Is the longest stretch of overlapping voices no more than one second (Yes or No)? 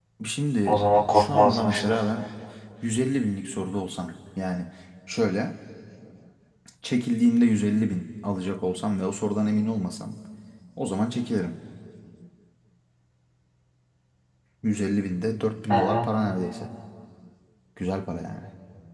No